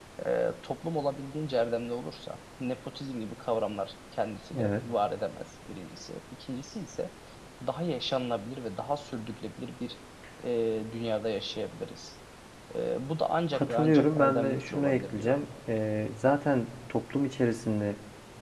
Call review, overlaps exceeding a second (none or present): present